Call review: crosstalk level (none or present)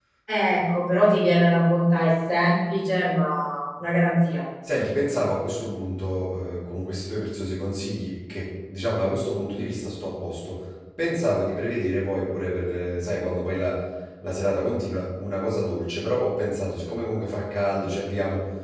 none